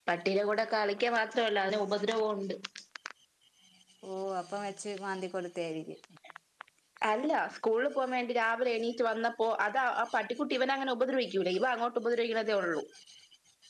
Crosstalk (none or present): none